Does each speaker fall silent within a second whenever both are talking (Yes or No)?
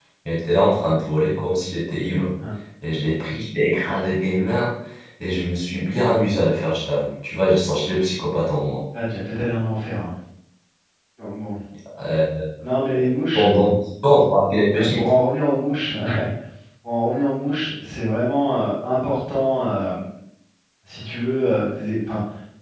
Yes